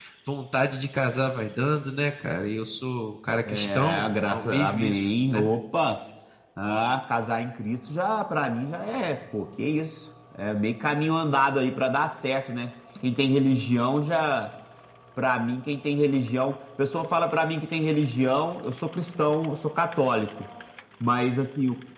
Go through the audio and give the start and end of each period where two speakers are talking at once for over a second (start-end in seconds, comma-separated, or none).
3.5-5.5